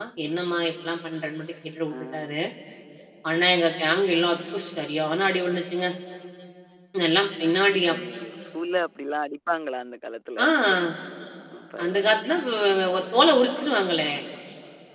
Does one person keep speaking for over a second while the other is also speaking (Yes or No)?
No